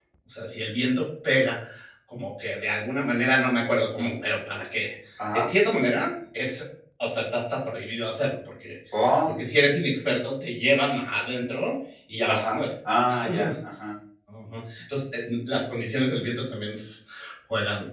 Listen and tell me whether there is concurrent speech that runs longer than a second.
No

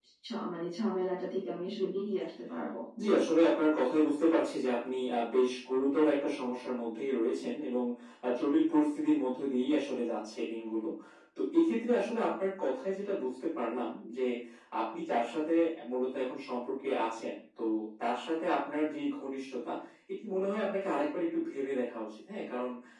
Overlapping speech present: No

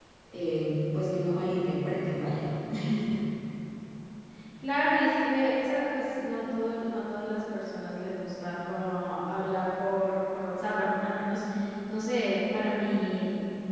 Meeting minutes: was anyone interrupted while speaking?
No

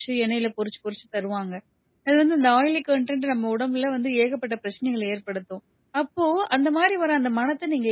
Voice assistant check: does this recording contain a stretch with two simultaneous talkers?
No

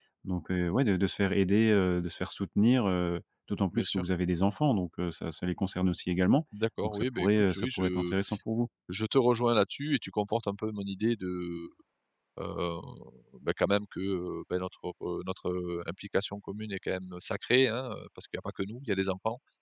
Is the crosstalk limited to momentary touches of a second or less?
No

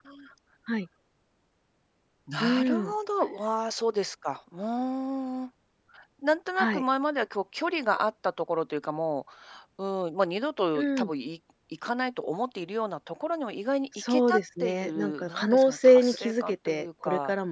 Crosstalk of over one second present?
Yes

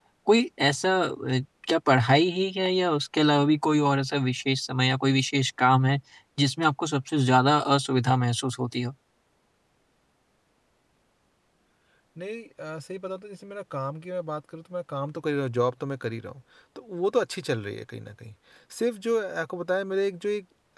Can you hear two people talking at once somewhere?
No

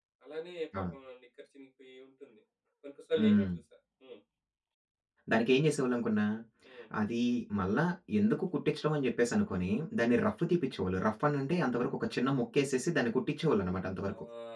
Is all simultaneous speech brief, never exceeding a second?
Yes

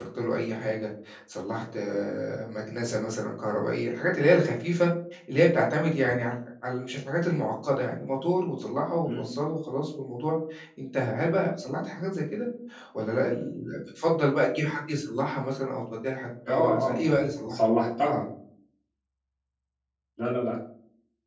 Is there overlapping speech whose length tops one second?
No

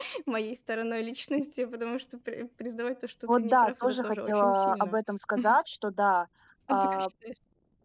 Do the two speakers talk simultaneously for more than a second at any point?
Yes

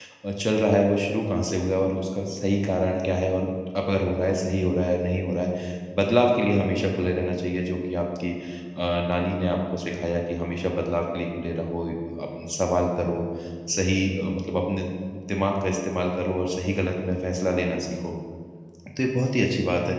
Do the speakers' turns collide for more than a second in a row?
No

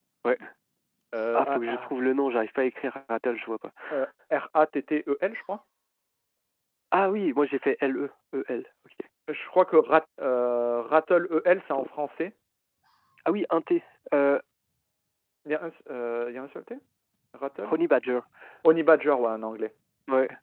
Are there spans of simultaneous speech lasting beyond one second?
No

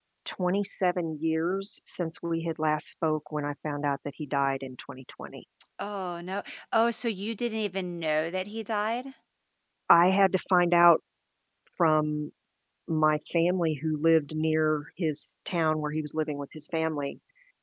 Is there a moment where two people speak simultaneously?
No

